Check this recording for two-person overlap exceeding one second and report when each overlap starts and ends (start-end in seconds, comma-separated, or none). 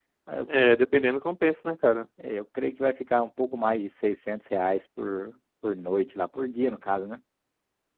none